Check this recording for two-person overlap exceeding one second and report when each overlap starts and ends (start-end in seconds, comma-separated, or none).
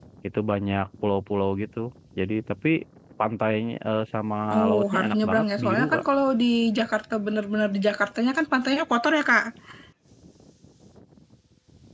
4.6-6.0